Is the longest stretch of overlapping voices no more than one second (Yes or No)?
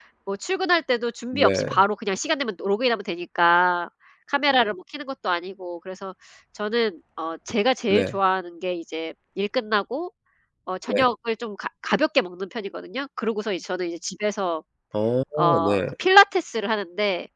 Yes